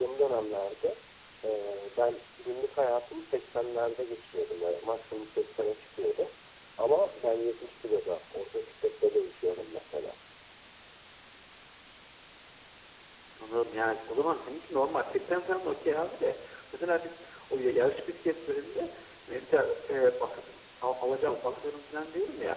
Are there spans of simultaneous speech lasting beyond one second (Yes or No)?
No